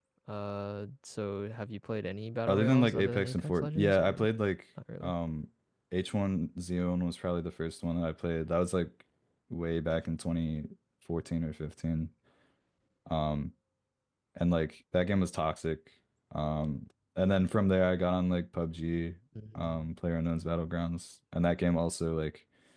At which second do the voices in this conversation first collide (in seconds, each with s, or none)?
2.5 s